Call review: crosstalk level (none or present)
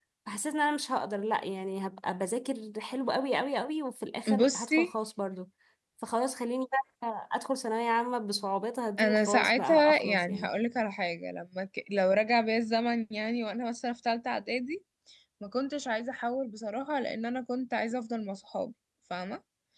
present